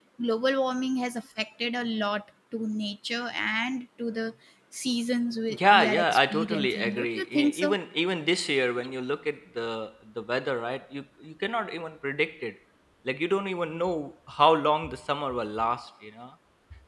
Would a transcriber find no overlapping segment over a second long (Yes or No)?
No